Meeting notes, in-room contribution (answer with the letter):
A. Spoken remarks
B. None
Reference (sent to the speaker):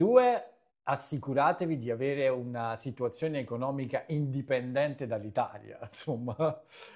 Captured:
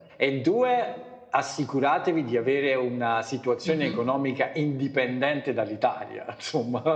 A